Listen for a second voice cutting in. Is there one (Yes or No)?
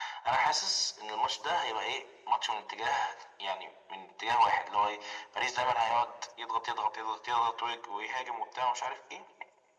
No